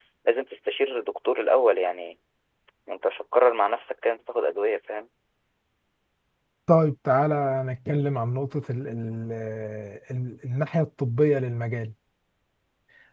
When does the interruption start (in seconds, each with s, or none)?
none